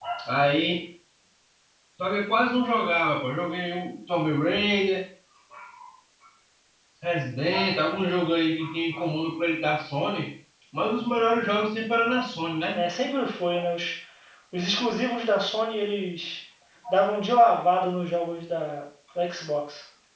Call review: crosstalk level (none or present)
none